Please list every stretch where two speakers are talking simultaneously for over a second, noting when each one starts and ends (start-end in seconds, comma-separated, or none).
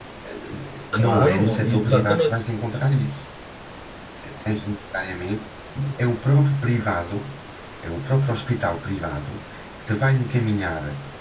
0.9-2.3